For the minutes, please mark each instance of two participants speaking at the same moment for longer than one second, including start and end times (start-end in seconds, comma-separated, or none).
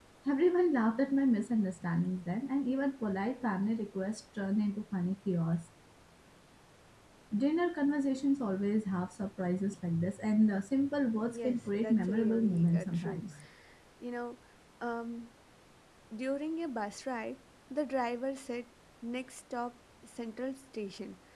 11.3-13.2